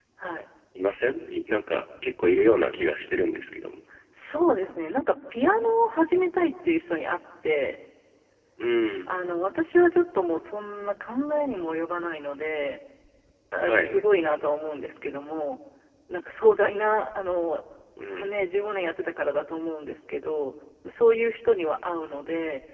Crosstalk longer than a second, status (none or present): none